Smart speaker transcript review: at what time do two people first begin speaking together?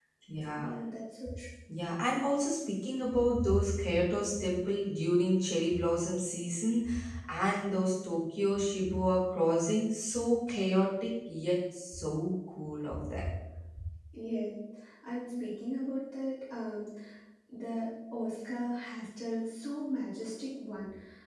none

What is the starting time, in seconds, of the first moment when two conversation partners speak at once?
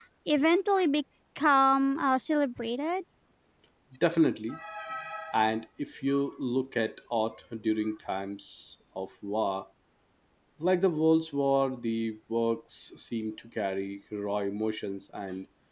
none

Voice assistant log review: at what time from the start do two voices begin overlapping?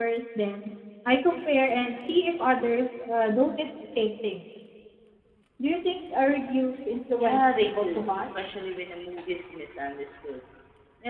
7.2 s

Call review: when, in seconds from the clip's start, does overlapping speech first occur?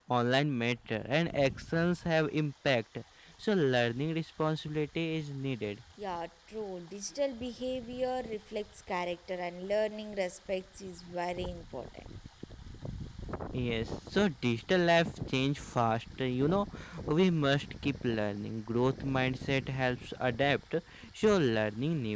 none

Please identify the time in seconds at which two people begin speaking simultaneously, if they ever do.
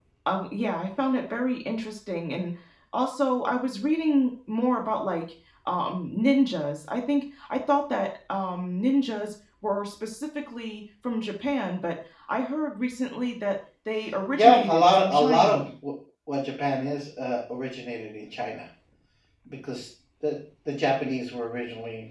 14.3 s

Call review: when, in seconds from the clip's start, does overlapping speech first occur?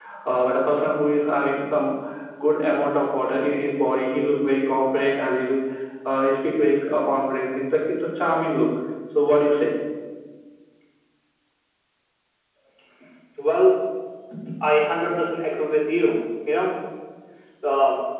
none

